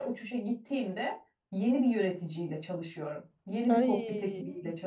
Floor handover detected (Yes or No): No